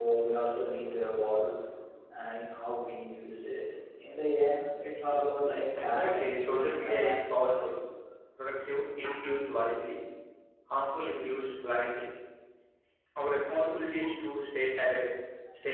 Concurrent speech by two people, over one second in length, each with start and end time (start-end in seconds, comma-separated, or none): 5.8-7.7